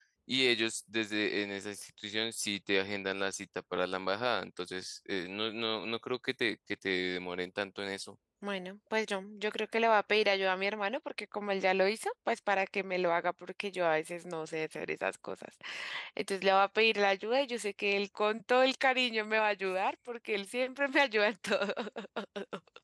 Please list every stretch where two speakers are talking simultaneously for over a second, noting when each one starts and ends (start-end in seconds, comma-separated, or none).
none